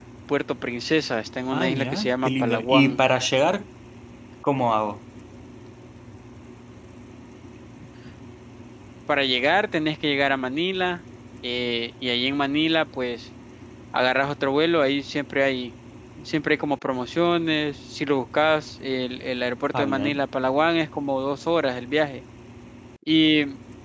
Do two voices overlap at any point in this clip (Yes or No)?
Yes